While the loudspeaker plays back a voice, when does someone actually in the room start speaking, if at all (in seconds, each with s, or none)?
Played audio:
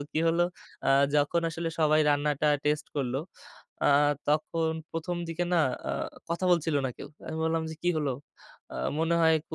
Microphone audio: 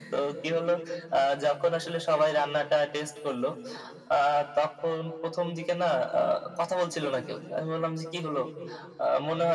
none